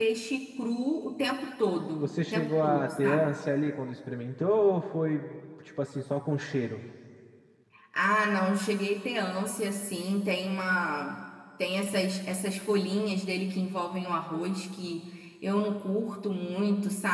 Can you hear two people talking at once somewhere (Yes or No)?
Yes